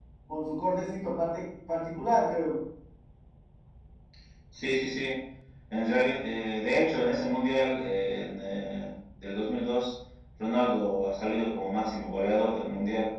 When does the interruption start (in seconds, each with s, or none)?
none